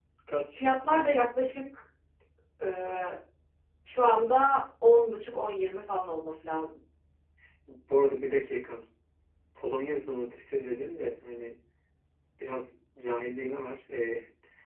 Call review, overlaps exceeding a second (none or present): none